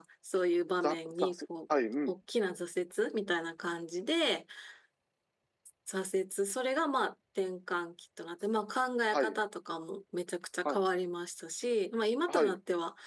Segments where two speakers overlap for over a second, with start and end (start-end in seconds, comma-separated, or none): none